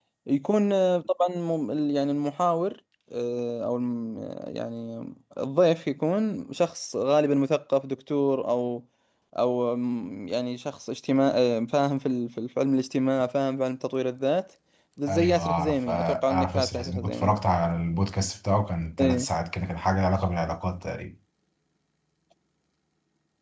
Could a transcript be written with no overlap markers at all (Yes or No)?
No